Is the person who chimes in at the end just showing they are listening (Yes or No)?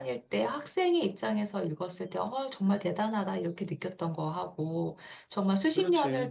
Yes